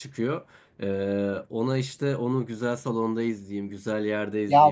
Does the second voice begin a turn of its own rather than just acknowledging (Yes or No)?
Yes